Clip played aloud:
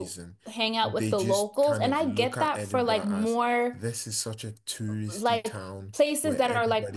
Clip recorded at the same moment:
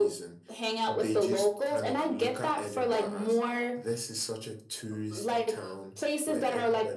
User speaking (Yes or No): No